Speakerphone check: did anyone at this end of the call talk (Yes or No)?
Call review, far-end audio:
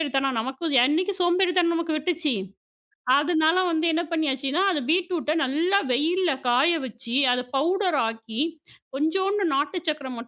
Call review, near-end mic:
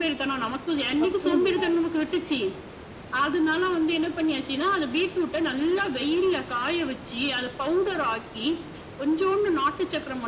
Yes